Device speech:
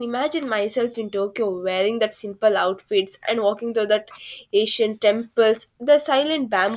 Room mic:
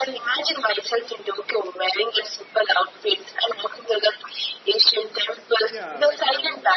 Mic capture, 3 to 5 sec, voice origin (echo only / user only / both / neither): echo only